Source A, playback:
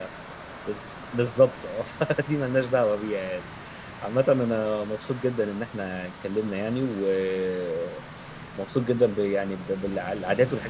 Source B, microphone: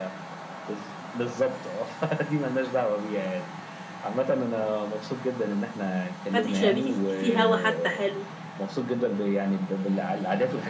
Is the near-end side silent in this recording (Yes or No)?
No